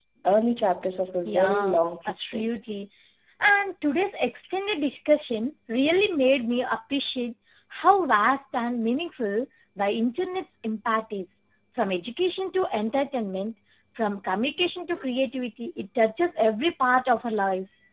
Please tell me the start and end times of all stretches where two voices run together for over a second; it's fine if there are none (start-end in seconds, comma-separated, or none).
1.2-2.5